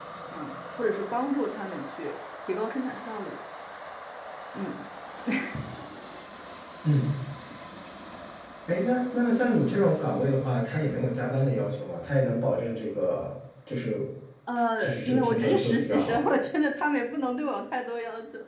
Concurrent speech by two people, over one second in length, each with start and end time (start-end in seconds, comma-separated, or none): 14.8-16.3